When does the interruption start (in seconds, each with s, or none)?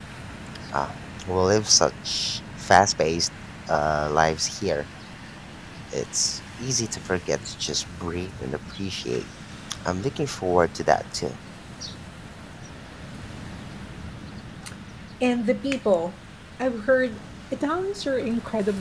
none